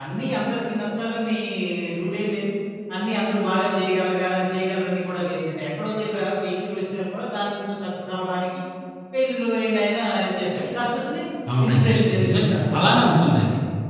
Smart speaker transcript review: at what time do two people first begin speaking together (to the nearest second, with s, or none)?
12 s